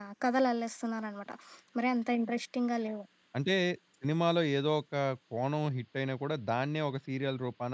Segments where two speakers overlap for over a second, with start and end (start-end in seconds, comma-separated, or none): none